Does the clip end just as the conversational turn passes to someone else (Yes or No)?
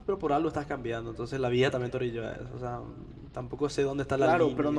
Yes